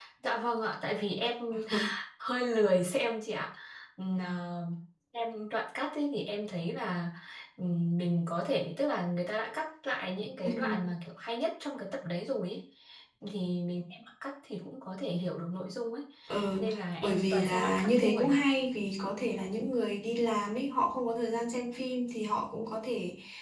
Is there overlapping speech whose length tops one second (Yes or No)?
Yes